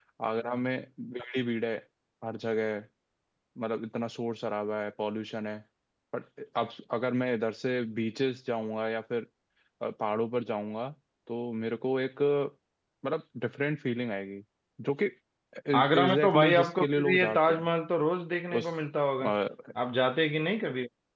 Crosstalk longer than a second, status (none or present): present